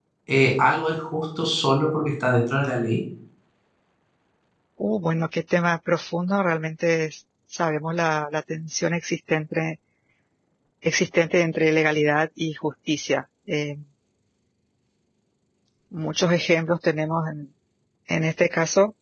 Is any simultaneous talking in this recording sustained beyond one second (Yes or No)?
No